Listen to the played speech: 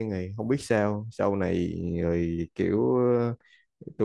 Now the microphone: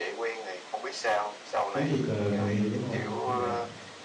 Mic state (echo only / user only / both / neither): both